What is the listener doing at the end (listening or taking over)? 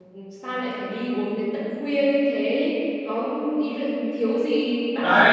taking over